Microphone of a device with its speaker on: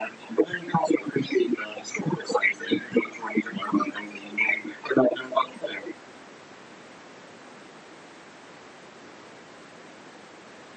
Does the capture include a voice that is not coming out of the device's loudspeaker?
No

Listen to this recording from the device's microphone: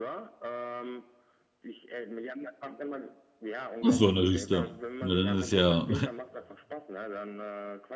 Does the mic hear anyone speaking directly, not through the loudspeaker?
Yes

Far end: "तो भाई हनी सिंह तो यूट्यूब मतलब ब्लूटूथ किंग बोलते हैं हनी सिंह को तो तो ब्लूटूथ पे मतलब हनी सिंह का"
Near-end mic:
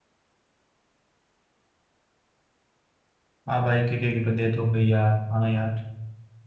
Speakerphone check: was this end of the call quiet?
No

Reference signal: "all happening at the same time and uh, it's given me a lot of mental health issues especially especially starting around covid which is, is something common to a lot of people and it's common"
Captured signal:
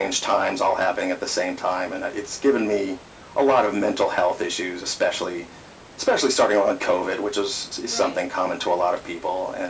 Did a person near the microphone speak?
Yes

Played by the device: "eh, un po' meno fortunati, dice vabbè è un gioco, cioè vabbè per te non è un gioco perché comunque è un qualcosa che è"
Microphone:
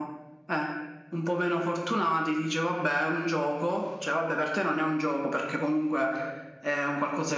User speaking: No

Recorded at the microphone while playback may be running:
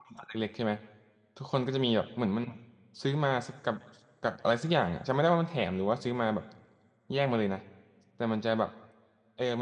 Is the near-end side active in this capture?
Yes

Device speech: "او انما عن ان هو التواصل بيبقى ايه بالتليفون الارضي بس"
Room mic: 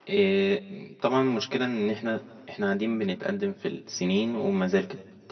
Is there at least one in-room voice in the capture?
Yes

